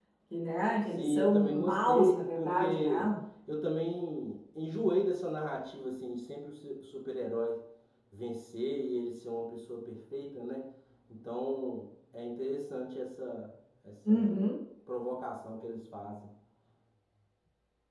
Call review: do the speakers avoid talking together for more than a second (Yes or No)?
No